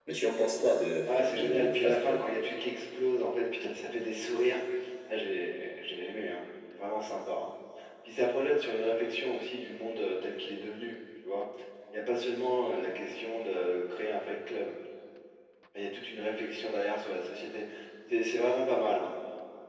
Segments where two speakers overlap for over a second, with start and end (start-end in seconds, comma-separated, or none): 1.1-2.3